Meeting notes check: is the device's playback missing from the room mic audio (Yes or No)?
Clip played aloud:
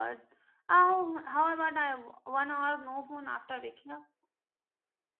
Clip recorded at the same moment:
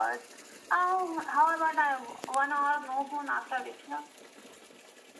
No